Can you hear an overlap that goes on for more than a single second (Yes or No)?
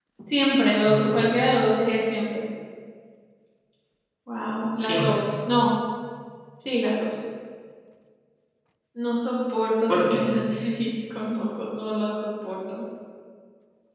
No